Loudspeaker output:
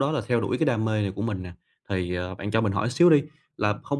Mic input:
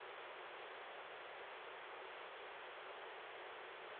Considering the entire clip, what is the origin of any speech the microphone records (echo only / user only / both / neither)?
neither